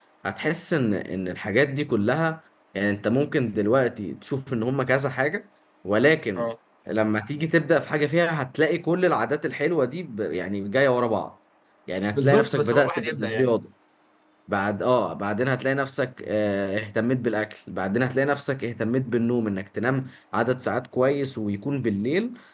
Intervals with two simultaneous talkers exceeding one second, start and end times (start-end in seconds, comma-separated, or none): 12.1-13.5